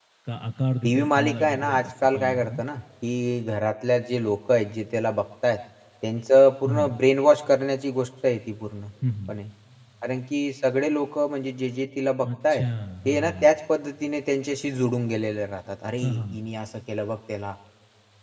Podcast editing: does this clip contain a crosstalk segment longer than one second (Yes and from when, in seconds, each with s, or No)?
Yes, from 0.8 s